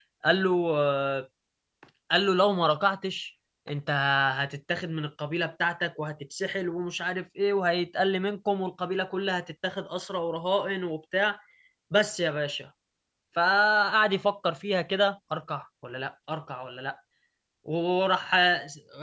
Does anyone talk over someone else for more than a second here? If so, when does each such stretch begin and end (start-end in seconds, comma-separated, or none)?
none